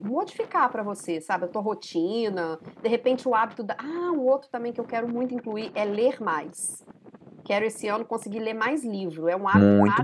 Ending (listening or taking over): taking over